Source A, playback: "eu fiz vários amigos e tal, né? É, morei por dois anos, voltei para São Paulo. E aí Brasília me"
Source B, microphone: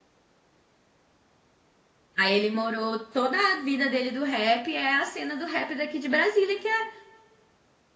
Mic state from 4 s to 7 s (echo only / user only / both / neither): user only